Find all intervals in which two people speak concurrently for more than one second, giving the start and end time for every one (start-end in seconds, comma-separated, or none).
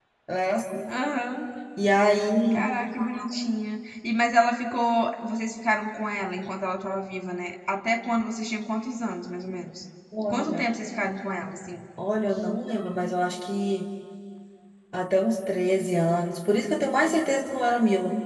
none